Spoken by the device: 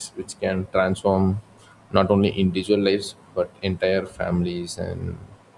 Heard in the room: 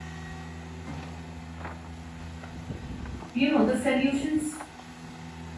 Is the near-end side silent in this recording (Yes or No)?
No